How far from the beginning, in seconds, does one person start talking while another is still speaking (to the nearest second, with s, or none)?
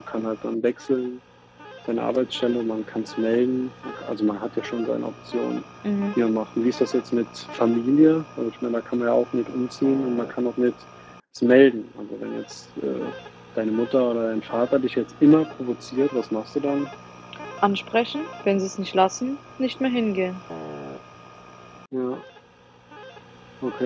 none